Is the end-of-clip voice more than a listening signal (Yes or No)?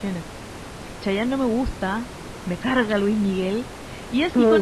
Yes